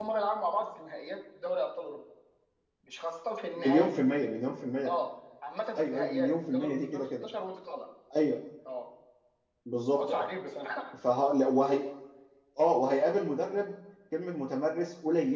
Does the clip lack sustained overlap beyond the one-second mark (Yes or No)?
No